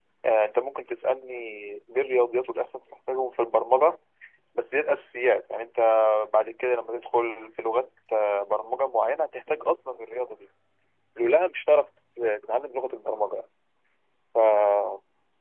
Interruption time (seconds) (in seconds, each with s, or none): none